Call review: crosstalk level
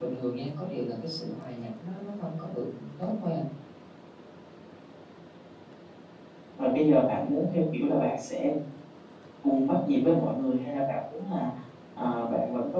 none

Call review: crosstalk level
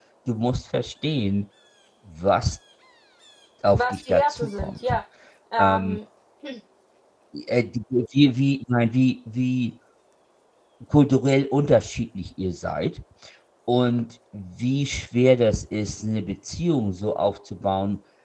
present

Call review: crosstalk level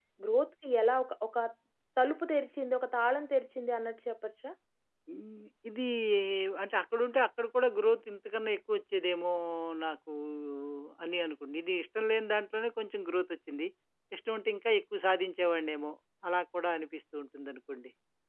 none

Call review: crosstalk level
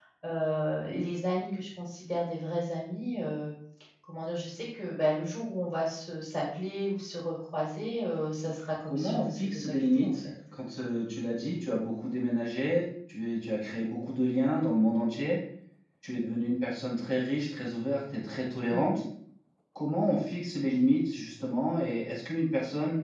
present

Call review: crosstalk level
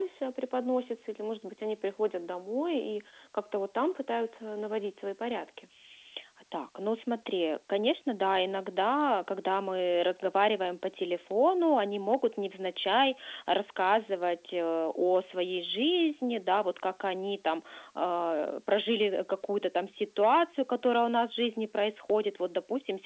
none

